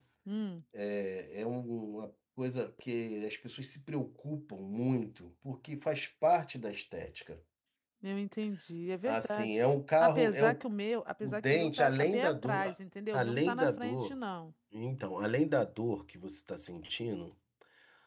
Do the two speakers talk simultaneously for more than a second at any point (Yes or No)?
Yes